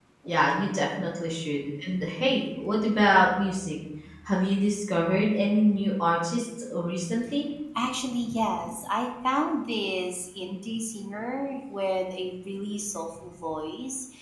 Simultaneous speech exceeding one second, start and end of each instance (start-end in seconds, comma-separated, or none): none